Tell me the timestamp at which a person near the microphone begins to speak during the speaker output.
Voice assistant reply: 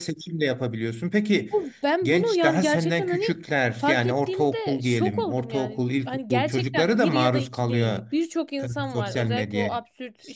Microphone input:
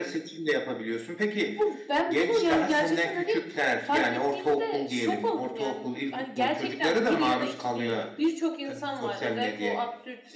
none

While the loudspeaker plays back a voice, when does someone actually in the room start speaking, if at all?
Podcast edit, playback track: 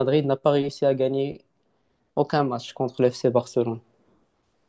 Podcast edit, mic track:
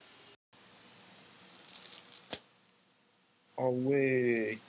3.6 s

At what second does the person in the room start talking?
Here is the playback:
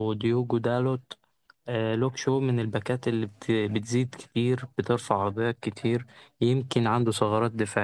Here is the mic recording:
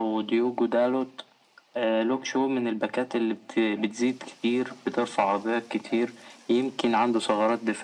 none

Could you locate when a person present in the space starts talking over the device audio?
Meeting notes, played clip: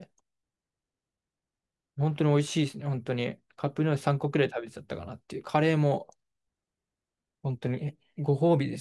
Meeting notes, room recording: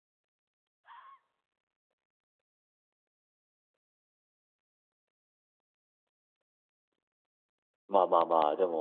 7.9 s

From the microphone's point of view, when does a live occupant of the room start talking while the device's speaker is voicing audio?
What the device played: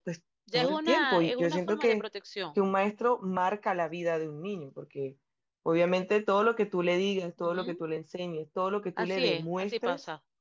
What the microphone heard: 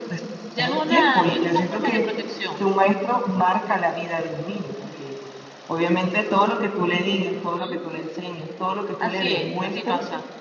none

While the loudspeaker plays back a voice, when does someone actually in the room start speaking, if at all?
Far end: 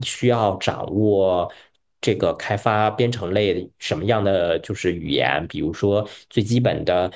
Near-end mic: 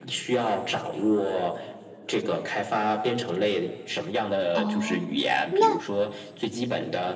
4.5 s

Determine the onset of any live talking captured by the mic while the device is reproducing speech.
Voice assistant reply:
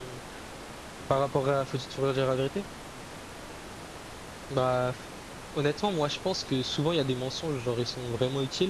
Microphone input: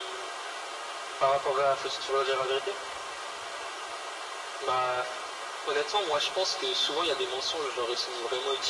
none

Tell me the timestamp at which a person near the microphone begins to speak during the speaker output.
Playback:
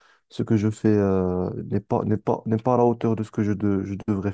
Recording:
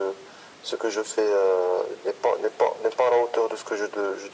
none

